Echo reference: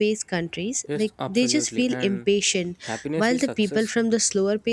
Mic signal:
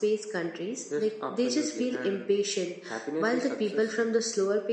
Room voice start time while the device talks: none

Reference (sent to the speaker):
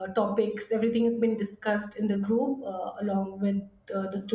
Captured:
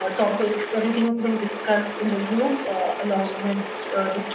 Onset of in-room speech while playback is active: none

